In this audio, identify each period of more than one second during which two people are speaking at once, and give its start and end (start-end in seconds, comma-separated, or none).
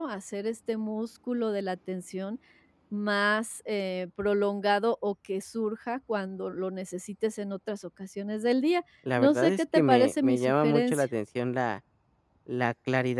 9.2-11.0